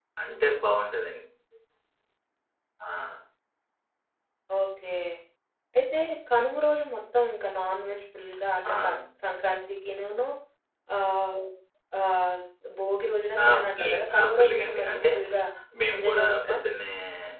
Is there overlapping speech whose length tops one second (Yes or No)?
Yes